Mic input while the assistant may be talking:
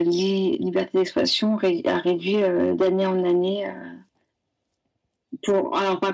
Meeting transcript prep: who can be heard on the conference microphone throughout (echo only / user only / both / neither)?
echo only